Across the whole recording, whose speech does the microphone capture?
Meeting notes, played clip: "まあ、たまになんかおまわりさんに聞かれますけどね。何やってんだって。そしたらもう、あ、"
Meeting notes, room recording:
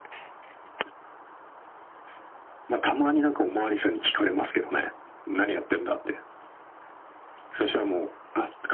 echo only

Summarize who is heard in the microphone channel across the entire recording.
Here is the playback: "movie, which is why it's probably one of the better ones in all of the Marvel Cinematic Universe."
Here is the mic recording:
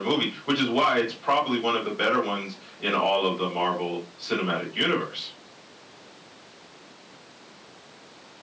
echo only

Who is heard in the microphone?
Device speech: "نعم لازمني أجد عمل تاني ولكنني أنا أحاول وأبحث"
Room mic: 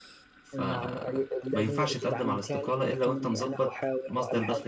both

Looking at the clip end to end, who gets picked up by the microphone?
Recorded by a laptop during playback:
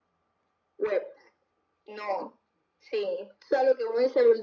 echo only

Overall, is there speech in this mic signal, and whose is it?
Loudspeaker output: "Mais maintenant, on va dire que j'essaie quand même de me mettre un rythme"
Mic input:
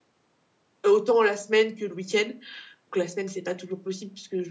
user only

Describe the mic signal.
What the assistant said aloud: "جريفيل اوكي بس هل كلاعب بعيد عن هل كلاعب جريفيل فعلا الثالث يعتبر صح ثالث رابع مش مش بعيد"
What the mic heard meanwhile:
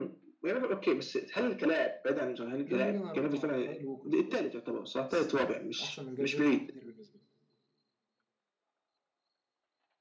both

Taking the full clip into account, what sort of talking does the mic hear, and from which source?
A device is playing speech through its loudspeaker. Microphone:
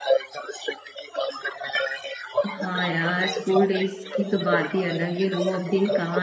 both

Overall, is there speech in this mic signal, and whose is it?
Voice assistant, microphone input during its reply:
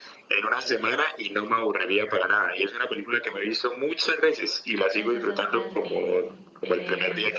both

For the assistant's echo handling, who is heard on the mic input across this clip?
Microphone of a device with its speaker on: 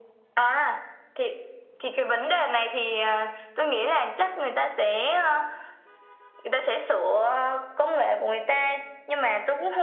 echo only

